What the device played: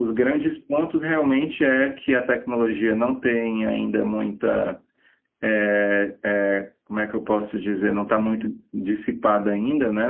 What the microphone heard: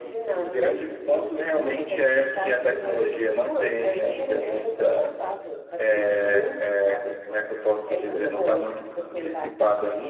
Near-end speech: present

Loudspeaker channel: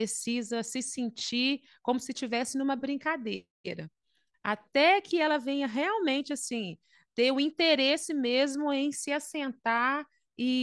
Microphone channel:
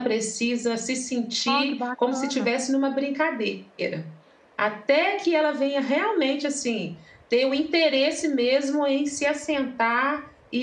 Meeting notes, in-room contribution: present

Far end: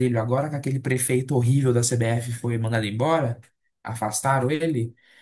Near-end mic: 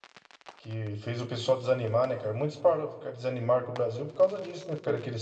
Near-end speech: present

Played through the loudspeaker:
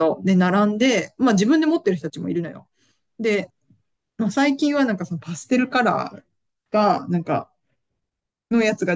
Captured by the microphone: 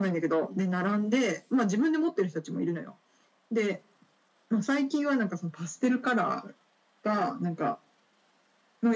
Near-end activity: none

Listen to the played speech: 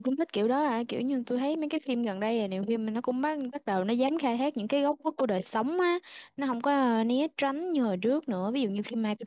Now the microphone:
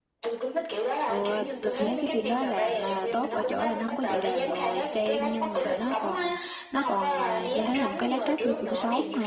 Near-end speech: present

